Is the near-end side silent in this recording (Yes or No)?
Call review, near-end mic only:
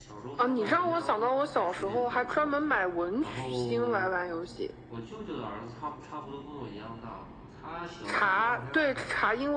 No